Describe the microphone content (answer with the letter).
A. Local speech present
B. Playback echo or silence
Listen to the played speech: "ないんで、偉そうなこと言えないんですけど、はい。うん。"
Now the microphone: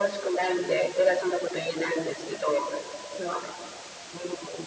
B